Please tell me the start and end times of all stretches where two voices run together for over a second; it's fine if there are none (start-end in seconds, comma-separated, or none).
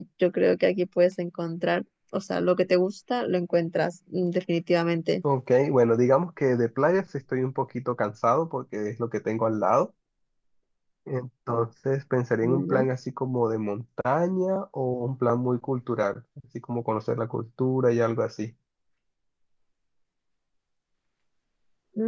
none